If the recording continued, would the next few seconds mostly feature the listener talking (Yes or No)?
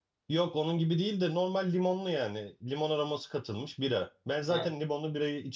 No